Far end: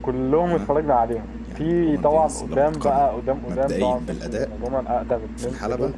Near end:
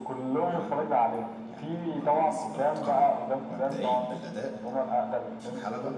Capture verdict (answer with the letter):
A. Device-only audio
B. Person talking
A